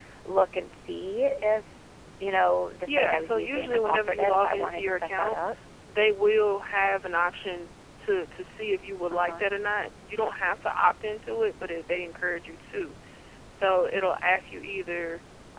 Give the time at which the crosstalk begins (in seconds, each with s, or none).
2.9 s